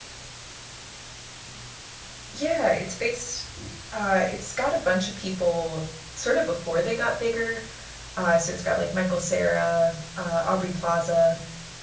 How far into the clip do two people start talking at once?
none

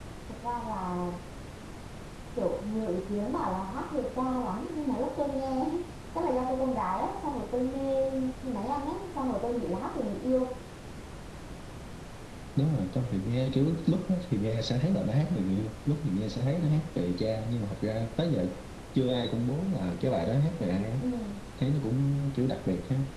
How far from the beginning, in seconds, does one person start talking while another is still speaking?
none

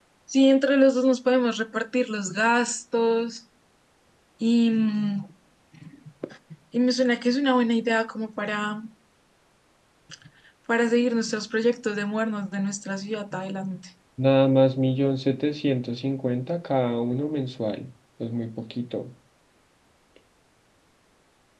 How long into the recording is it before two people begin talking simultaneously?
none

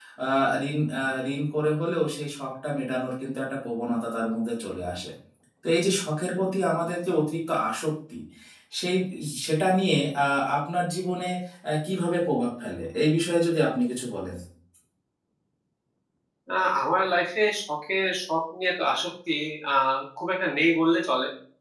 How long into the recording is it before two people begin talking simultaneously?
none

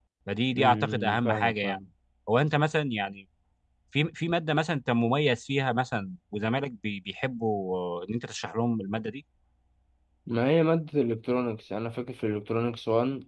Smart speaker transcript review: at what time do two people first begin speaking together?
0.6 s

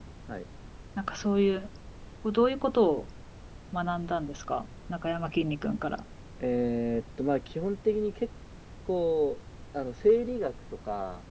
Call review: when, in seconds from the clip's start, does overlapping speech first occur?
none

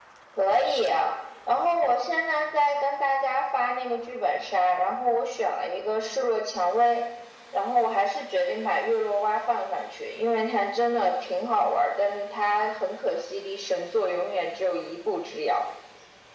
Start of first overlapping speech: none

